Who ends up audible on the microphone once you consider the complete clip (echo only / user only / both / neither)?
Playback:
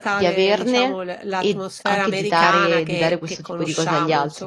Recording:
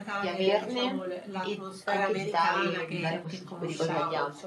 echo only